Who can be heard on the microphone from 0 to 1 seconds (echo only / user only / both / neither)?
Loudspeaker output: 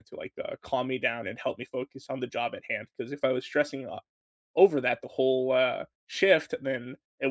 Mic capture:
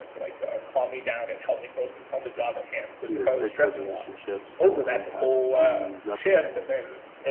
echo only